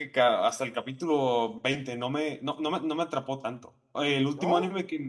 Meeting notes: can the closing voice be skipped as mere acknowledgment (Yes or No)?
Yes